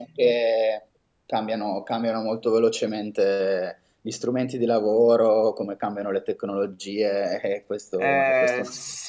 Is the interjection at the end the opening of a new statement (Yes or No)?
Yes